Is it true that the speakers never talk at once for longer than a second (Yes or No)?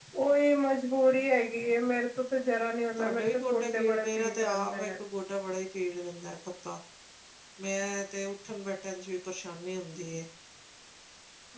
No